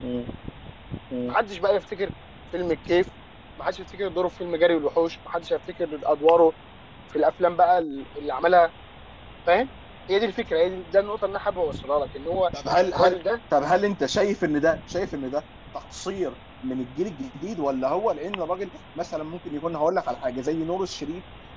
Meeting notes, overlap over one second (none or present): none